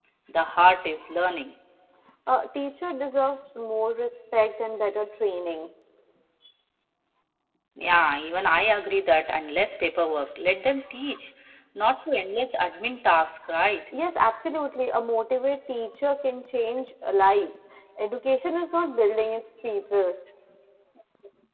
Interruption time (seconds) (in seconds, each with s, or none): none